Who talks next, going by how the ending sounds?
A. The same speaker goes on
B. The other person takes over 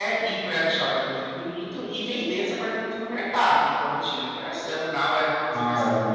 B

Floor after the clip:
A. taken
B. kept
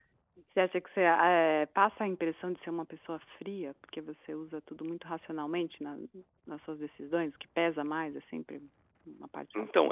A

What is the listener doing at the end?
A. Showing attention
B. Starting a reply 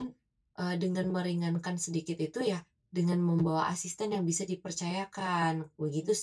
B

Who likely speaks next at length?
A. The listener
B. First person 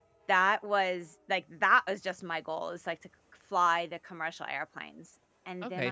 A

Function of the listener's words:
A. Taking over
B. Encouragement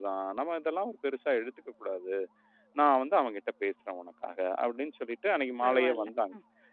B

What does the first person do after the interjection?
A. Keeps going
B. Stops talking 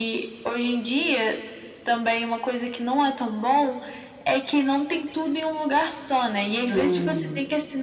A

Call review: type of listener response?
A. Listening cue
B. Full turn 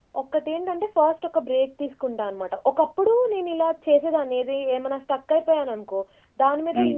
A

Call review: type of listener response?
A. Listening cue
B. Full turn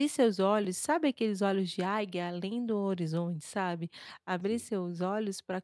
A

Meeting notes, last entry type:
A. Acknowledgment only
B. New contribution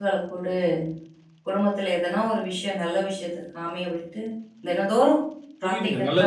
B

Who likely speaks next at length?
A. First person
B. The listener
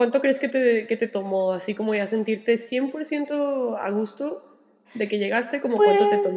B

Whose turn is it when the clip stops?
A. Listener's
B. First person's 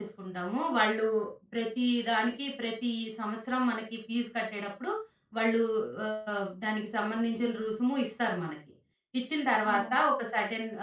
B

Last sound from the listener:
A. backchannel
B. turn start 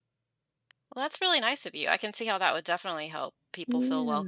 B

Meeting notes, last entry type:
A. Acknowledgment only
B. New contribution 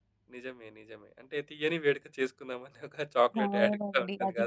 B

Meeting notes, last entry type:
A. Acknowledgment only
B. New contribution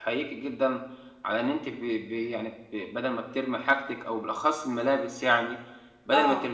A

